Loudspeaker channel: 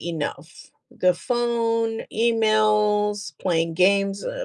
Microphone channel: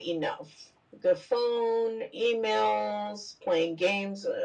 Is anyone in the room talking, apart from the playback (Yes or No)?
No